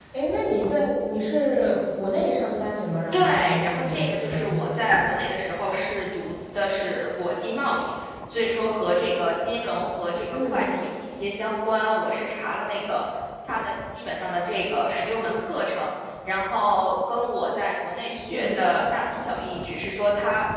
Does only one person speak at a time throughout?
No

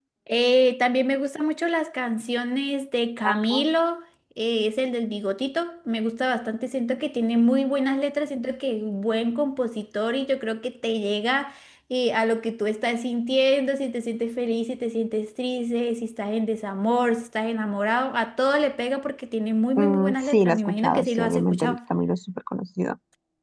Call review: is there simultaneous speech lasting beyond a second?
Yes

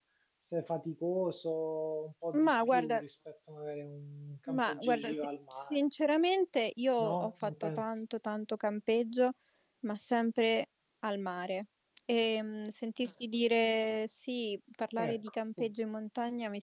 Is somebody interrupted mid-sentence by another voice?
Yes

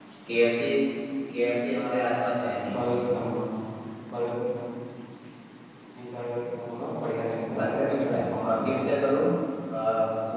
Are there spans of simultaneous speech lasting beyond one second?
Yes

